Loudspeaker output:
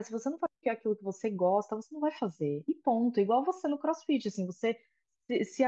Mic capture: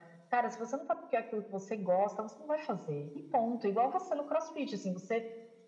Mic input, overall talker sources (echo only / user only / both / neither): echo only